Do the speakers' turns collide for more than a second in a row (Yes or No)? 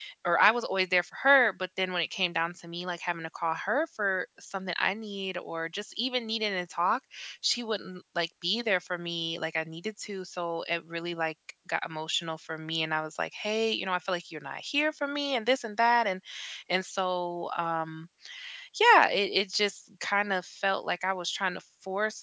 No